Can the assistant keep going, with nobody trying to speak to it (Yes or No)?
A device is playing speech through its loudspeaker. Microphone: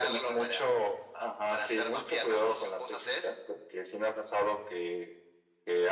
Yes